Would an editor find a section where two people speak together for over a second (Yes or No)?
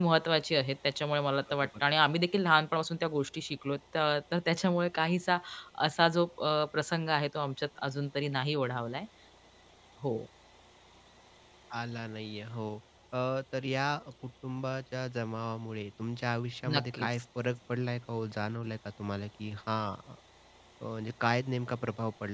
No